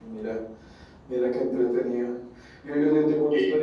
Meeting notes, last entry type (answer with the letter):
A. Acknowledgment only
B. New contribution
A